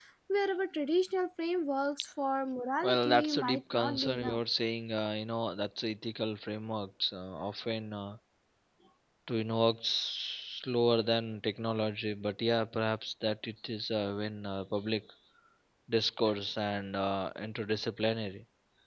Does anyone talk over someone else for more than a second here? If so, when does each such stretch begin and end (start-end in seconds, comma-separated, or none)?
2.8-4.4